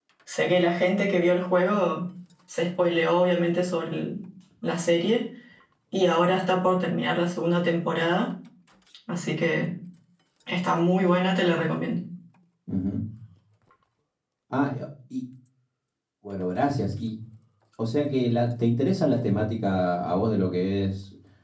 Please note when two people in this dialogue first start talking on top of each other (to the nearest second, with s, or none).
none